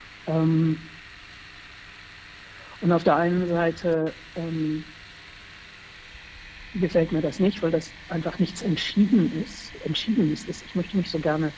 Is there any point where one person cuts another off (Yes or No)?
No